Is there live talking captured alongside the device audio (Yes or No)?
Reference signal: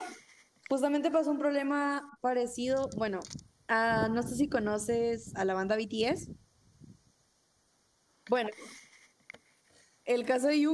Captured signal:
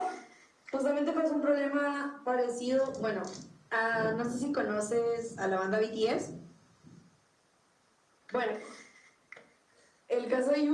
No